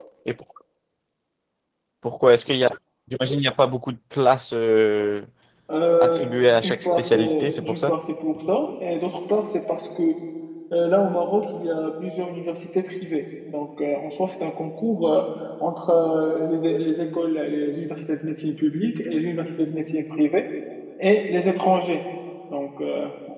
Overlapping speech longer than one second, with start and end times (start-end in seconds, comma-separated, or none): 6.6-7.9